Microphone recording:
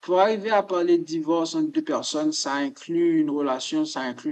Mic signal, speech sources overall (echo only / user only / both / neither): echo only